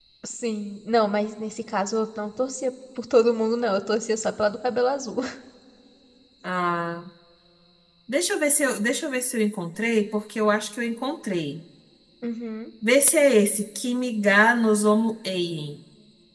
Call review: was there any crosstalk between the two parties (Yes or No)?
No